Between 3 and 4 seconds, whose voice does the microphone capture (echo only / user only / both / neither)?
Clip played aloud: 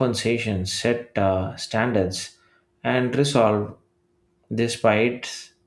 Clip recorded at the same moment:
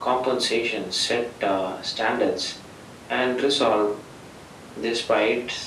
echo only